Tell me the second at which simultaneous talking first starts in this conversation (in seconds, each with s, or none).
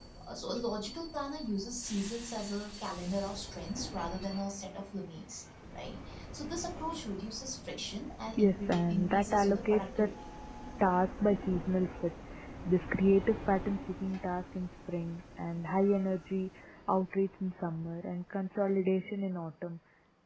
8.4 s